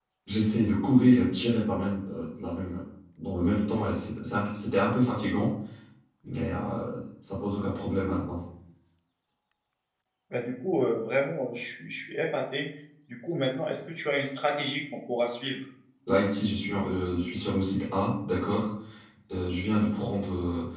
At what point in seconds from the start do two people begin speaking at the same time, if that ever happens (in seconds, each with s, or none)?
none